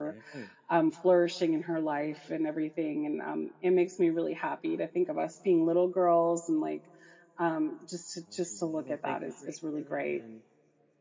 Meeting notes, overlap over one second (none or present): present